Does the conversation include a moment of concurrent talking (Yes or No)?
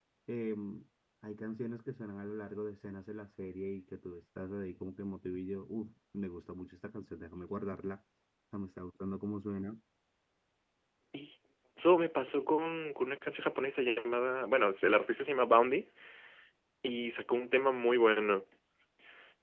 No